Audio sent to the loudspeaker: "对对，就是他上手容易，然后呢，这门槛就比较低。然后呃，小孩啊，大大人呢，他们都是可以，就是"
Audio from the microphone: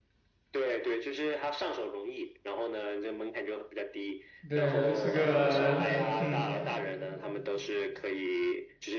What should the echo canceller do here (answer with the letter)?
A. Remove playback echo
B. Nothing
A